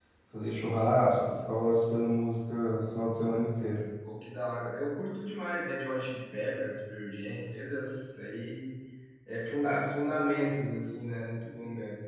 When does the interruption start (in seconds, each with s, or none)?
none